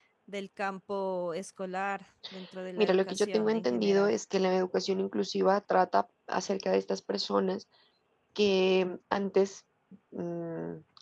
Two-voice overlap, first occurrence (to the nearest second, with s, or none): 3 s